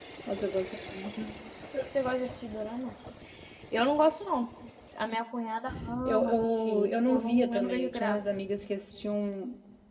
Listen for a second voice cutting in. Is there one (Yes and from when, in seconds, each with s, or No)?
Yes, from 6.0 s